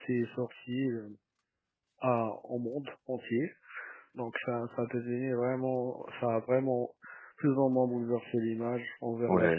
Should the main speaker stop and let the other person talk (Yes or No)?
Yes